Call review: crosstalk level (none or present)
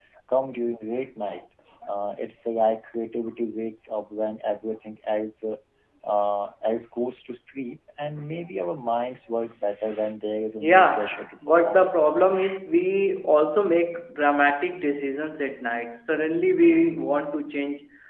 present